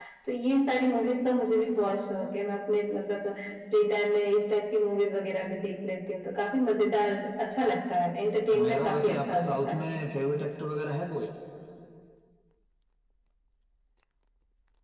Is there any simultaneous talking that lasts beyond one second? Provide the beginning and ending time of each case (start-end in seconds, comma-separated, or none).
8.6-9.9